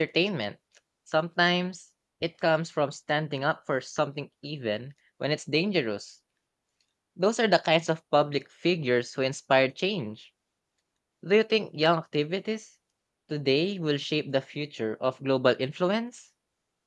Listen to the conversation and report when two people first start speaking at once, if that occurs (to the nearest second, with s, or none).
none